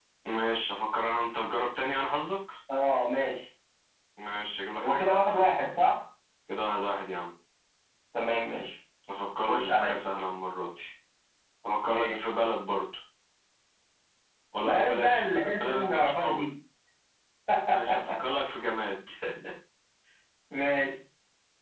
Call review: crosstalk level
present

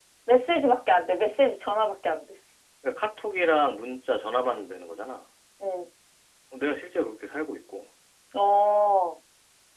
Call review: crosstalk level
none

